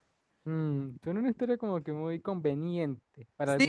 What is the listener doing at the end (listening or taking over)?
taking over